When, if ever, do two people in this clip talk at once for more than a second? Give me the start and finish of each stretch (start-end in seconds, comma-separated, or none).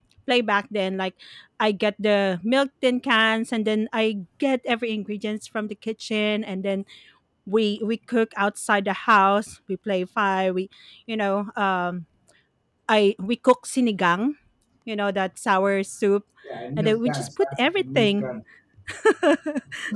16.8-18.3